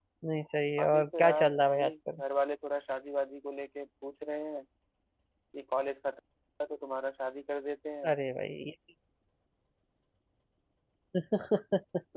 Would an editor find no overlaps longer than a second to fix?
No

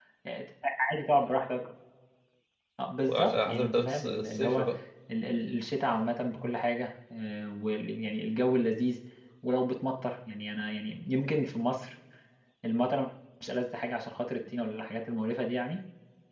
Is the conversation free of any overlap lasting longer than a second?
No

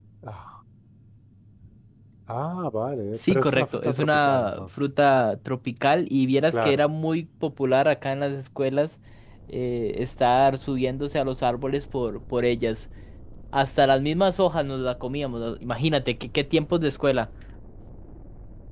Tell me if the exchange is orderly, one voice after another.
No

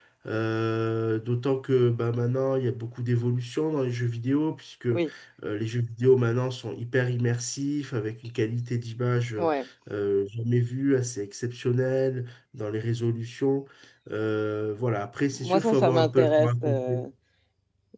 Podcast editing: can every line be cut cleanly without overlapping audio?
No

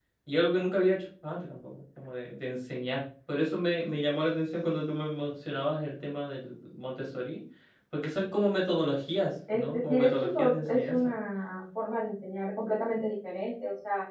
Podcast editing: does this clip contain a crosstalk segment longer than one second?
Yes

